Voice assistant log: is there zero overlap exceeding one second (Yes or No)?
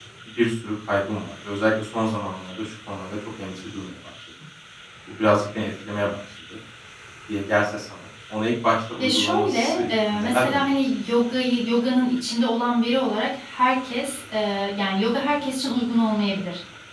No